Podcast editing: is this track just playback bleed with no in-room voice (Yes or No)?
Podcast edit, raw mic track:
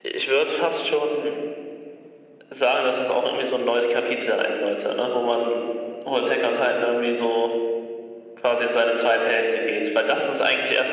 Yes